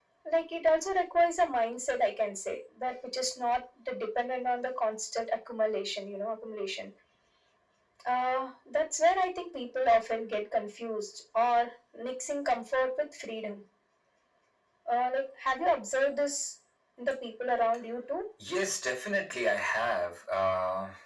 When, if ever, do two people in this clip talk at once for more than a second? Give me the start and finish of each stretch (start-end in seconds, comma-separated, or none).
none